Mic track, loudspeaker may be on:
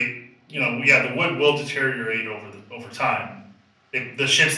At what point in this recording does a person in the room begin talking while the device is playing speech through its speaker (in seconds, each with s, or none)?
none